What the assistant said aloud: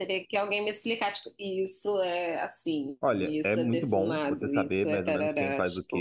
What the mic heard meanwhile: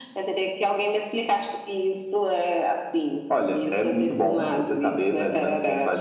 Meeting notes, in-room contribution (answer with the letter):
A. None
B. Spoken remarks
A